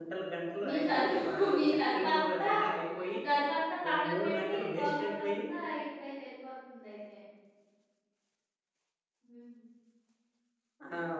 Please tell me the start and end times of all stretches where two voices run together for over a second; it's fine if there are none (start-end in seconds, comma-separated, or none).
0.6-2.5, 3.9-5.4